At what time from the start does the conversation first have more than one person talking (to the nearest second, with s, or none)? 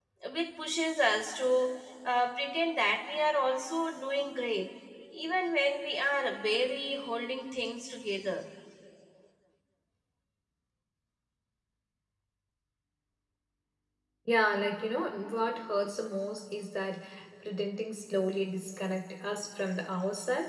none